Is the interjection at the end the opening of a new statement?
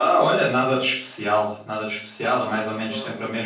No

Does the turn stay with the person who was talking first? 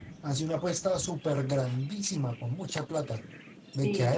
Yes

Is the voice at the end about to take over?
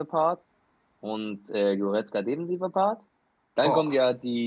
No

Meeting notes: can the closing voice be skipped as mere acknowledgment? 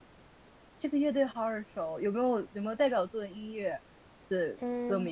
No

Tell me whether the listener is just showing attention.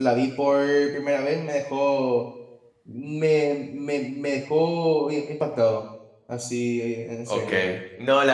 No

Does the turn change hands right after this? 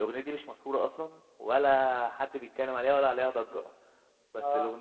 No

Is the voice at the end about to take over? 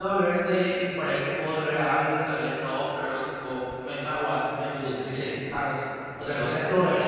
No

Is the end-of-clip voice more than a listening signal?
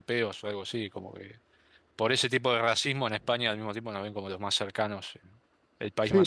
Yes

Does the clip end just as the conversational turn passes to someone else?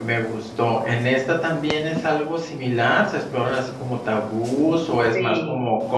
Yes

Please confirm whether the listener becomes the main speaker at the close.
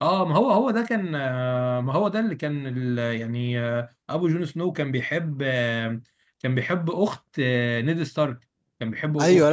Yes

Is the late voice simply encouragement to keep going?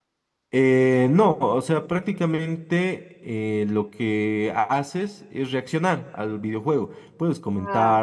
Yes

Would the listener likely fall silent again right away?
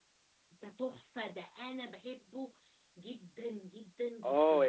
No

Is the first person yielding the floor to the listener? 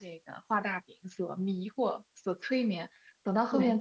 No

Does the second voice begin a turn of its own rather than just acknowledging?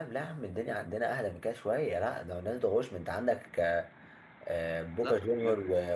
No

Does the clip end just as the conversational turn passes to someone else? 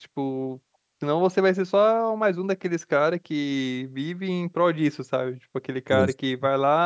No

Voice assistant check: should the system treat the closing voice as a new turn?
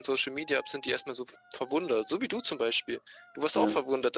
No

